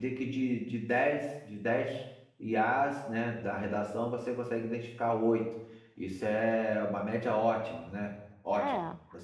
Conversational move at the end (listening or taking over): listening